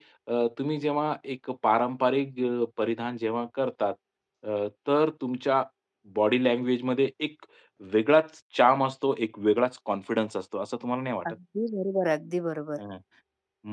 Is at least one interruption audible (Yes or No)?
No